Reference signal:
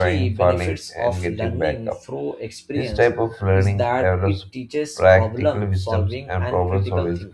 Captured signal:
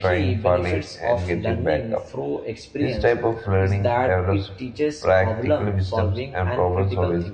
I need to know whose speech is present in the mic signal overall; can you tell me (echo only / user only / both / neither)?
echo only